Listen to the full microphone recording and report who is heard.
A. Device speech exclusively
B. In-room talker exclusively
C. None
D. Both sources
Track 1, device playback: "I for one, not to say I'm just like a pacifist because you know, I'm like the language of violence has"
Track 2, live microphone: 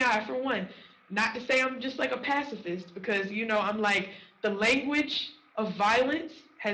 A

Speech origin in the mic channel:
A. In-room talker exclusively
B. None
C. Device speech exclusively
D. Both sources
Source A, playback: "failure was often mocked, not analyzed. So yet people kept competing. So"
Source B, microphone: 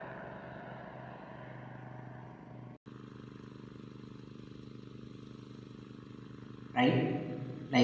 A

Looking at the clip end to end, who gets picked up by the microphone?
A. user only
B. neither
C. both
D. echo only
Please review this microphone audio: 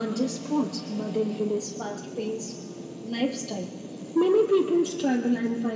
D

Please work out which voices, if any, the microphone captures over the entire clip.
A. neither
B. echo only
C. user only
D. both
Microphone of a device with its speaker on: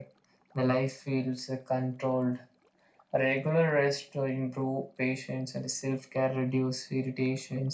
B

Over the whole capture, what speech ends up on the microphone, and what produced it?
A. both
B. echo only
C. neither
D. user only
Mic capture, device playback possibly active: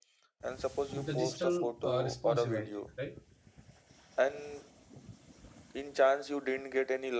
A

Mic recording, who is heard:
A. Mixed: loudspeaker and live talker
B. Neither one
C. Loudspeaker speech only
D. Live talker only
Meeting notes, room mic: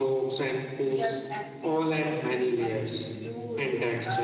A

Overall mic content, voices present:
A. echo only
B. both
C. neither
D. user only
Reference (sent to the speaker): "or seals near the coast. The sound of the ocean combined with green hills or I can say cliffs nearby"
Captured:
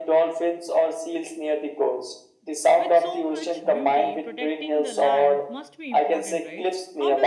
B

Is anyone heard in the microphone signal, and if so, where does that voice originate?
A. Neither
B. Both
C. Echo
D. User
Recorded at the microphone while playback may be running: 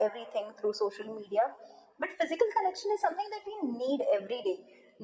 C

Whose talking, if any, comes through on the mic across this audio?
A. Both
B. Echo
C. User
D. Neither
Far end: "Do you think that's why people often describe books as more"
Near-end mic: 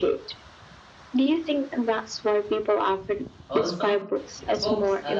A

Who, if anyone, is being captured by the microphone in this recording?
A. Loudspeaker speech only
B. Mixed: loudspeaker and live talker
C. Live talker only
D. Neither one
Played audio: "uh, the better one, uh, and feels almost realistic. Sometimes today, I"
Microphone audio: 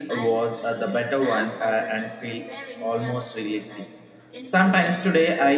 B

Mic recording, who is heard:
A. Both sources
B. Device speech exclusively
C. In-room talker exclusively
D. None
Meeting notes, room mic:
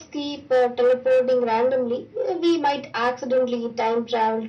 B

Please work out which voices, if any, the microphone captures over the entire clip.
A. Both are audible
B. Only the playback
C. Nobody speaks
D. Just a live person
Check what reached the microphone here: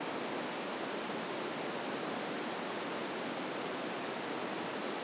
C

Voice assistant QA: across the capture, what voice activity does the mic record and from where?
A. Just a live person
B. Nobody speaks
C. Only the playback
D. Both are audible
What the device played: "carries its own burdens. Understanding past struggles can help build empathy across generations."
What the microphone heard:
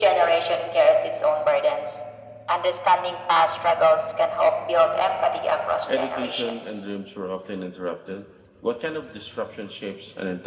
D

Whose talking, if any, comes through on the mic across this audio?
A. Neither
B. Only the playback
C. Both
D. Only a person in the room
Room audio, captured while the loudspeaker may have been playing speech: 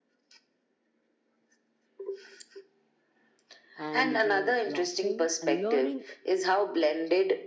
C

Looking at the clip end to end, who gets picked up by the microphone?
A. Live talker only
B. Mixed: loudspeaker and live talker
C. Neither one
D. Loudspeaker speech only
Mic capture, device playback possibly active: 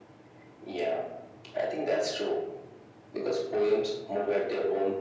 D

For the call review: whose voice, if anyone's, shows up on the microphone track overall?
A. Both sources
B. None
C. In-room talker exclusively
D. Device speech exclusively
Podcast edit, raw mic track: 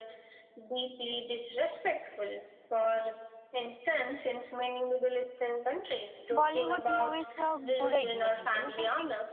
A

